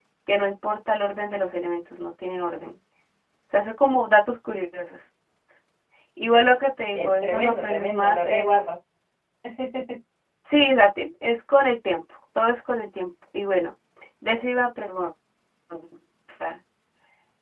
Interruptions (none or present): present